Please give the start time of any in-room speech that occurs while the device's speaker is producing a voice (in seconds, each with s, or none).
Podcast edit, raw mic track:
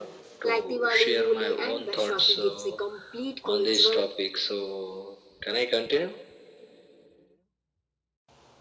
0.4 s